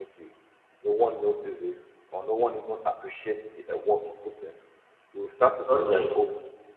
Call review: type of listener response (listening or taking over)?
listening